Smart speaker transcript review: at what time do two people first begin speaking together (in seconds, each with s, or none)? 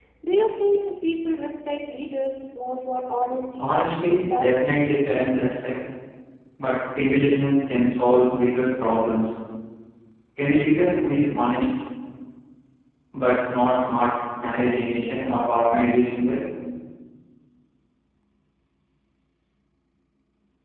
3.6 s